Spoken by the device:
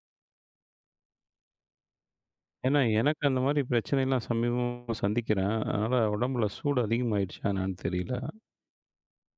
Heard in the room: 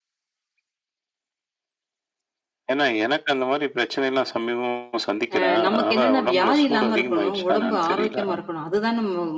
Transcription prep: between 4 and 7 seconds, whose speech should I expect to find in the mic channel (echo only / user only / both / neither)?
both